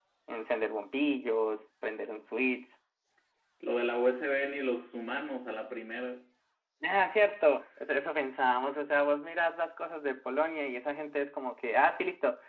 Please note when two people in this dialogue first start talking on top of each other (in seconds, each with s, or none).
none